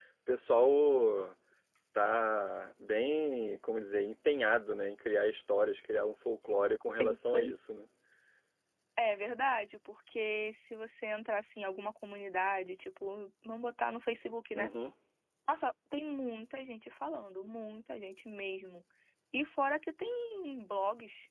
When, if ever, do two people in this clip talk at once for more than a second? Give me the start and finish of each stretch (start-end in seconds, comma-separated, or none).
none